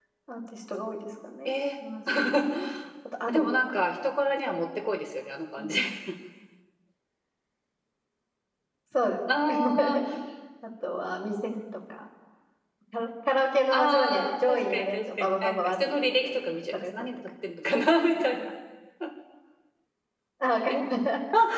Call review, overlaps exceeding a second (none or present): present